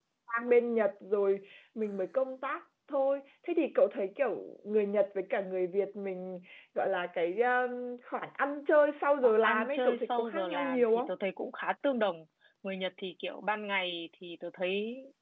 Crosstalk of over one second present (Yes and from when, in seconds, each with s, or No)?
Yes, from 9.2 s